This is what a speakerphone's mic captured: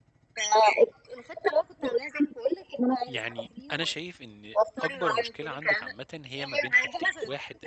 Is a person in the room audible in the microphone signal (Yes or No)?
Yes